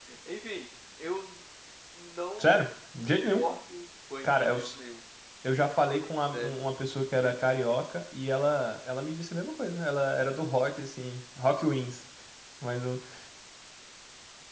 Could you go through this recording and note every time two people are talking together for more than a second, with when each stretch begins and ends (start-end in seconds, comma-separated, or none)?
none